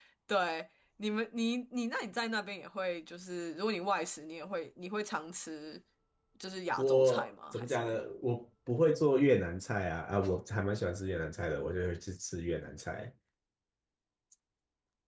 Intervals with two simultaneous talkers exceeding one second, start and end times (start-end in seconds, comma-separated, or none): 6.8-8.0